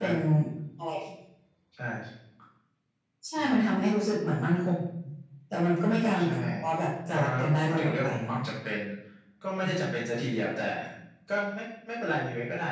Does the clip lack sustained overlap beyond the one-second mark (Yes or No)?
No